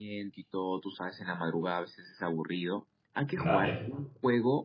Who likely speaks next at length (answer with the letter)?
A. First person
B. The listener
A